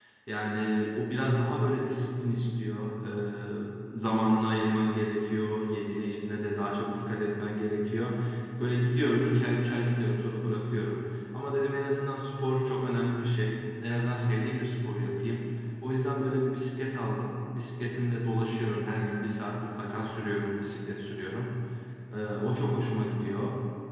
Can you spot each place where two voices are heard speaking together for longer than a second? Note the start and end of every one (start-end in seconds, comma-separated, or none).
none